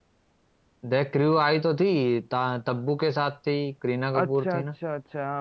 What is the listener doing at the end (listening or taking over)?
taking over